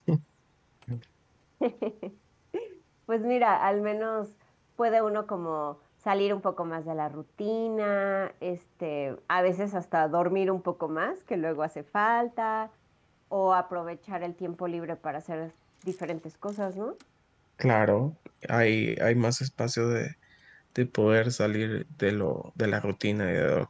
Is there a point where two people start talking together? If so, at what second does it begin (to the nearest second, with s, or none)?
none